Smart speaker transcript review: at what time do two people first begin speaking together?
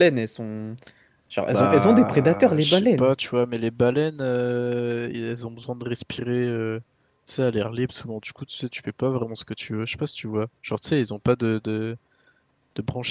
1 s

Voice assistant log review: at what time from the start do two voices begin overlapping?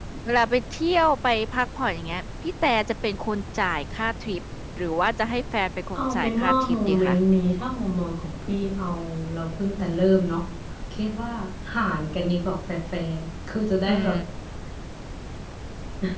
6 s

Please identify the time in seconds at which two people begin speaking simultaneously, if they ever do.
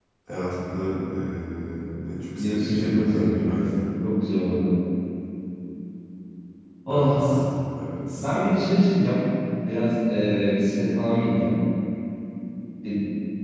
2 s

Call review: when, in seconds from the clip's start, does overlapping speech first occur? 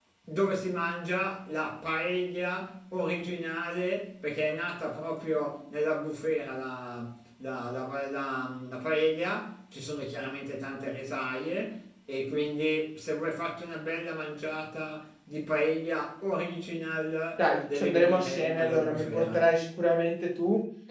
17 s

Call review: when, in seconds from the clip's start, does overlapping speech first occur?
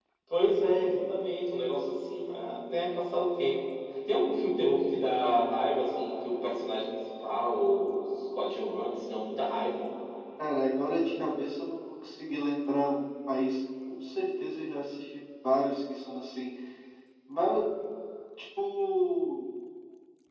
none

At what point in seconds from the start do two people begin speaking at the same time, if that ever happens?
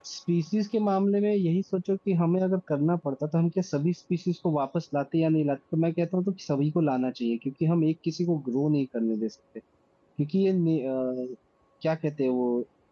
none

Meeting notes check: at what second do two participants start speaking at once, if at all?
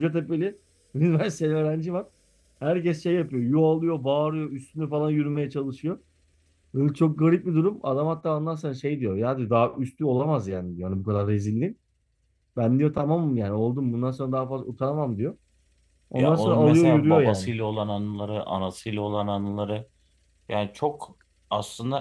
16 s

